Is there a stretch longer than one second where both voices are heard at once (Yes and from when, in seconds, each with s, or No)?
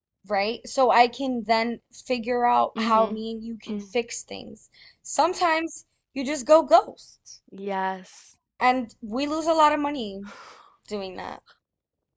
No